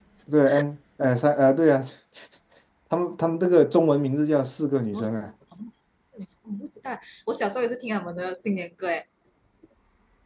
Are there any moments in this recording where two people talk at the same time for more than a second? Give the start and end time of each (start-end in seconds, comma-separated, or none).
none